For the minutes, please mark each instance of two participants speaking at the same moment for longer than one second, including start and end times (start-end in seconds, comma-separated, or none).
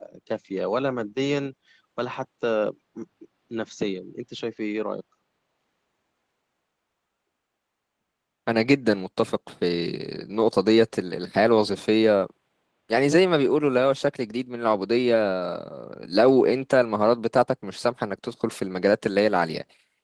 none